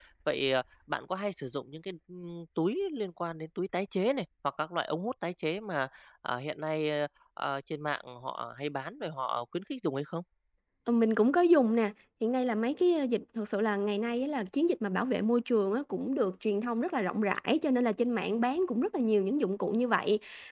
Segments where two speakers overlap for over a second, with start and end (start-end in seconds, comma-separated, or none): none